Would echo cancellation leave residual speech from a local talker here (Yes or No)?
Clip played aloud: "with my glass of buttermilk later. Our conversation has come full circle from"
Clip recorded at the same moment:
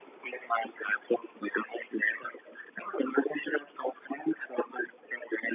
No